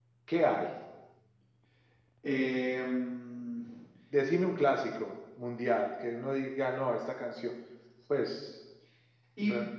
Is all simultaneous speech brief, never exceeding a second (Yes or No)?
Yes